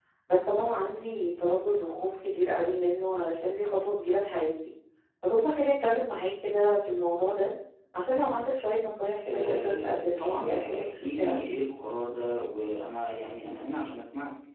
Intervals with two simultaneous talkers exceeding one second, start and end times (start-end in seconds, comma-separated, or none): 9.3-11.5